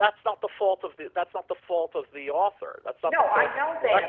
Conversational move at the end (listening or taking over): taking over